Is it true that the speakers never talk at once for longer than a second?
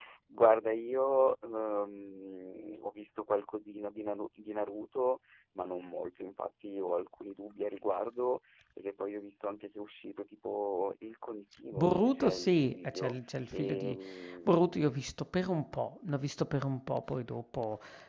No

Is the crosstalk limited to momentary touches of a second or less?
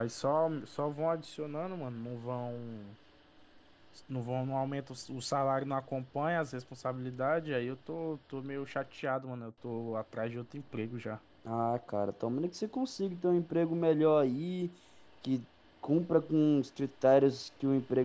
Yes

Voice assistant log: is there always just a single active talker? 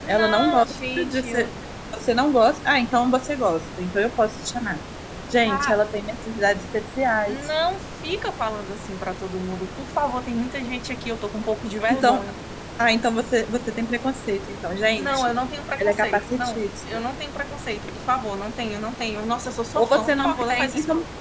No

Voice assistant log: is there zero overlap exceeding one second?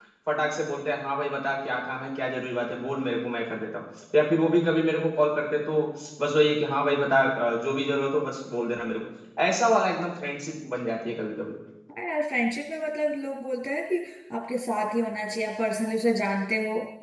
Yes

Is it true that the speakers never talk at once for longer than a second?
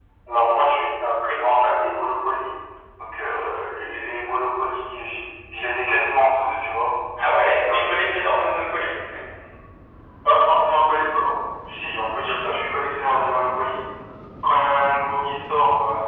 Yes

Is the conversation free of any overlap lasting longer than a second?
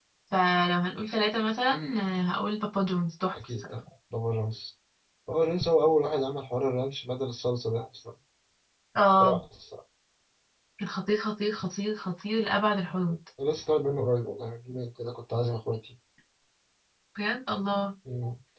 Yes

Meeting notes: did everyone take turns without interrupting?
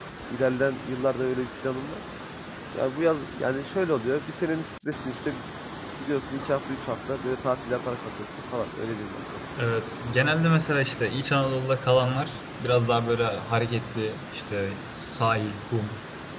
Yes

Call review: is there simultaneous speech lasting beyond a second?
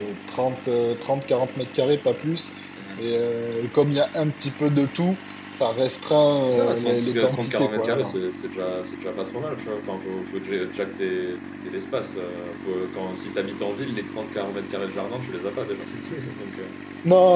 Yes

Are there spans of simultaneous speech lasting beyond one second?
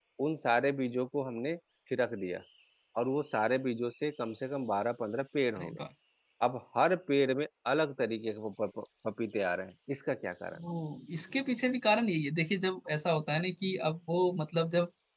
No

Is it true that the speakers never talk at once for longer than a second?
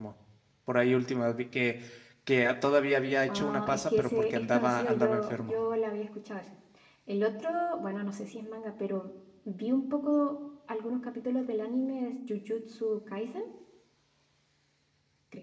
No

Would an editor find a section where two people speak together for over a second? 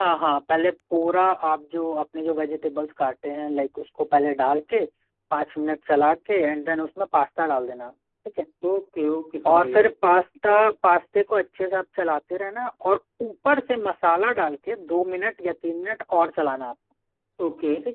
No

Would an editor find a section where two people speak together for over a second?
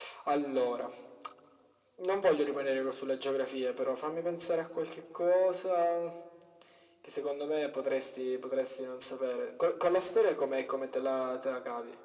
No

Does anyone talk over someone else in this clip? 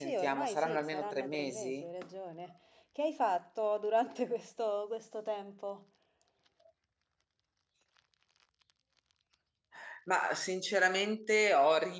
Yes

